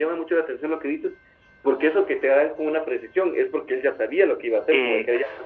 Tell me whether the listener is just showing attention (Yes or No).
Yes